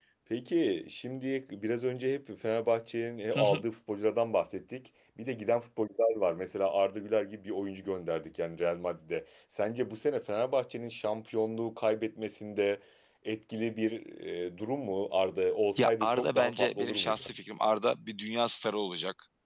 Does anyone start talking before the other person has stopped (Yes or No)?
Yes